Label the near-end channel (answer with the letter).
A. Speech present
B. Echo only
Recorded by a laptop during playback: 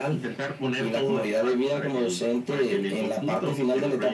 B